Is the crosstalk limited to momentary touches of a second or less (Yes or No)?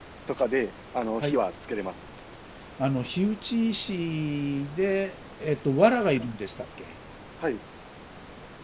Yes